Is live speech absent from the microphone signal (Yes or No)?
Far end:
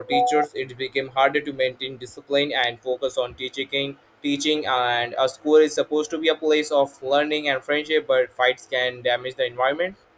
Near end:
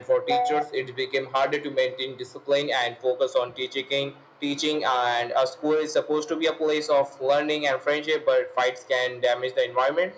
Yes